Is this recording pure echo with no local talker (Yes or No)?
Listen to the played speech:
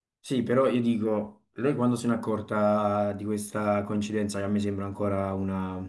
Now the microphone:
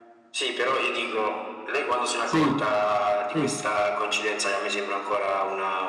No